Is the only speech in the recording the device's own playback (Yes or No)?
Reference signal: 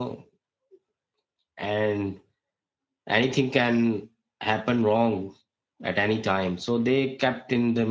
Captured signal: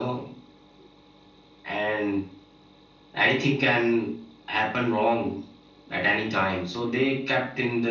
Yes